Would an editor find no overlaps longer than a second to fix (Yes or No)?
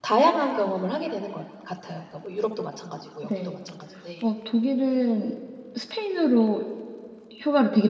Yes